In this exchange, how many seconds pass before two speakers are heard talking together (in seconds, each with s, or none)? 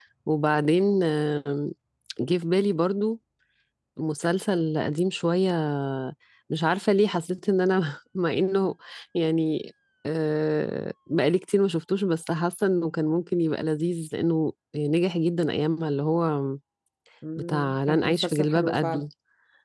17.5 s